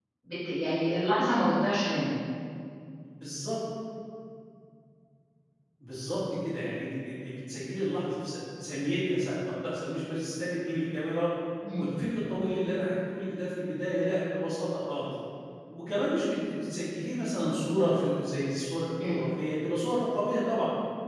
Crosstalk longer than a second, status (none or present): none